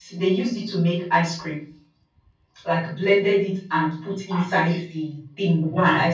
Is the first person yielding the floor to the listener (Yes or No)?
No